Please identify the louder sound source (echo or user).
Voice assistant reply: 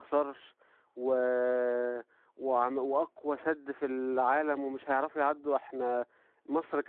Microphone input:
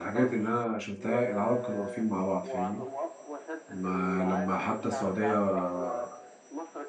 user